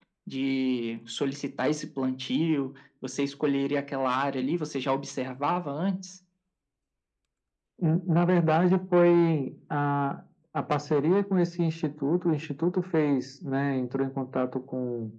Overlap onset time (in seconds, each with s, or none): none